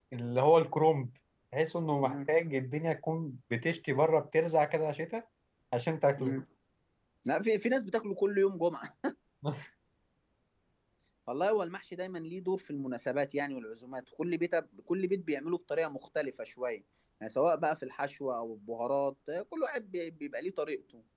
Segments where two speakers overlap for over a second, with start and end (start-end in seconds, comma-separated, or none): none